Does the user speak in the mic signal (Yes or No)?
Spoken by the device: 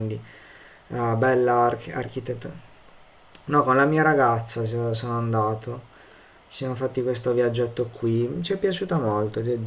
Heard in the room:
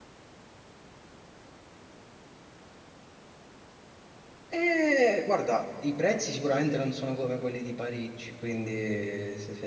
Yes